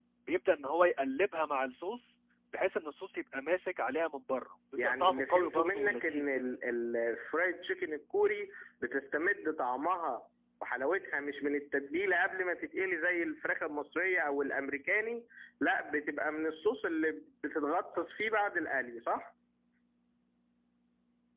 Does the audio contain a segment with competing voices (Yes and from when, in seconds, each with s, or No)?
Yes, from 4.8 s